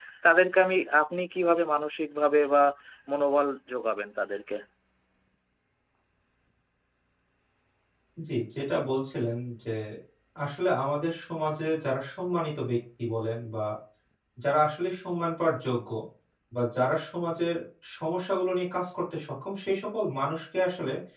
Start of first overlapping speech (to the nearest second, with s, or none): none